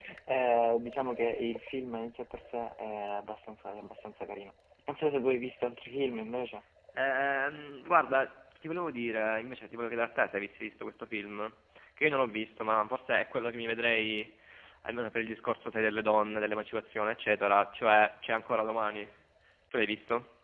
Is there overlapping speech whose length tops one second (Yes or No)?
No